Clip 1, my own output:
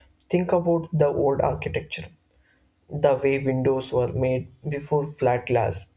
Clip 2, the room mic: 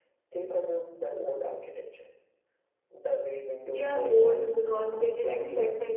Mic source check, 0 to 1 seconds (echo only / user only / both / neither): echo only